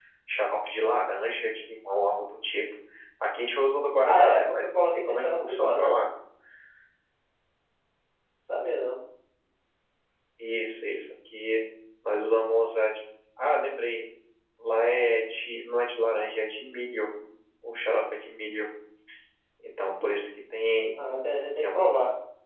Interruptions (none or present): present